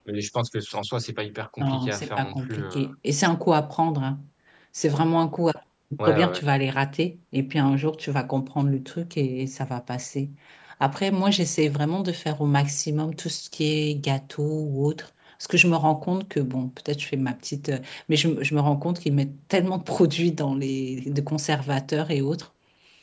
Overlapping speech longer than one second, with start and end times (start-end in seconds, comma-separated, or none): 1.6-2.9